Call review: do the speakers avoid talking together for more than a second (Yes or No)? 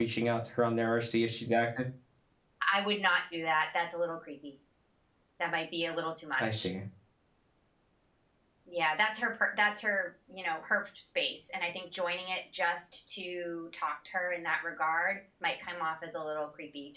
Yes